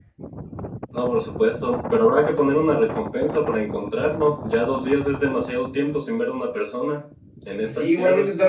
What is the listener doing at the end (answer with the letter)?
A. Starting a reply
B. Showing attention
A